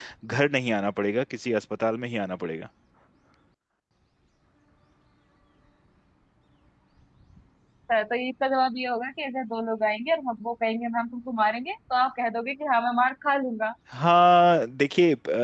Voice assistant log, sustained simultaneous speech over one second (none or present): none